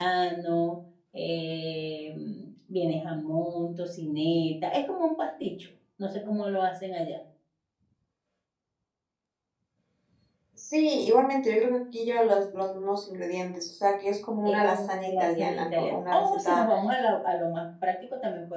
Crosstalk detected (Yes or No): Yes